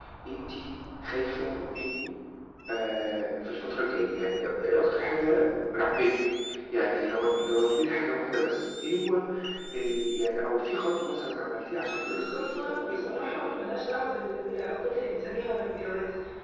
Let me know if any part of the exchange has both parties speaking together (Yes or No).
Yes